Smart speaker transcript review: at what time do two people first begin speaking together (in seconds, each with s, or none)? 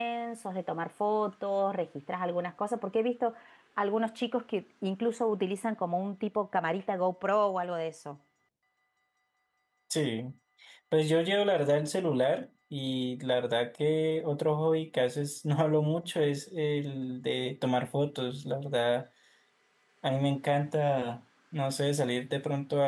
none